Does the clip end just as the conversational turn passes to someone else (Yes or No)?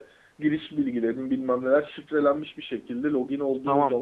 Yes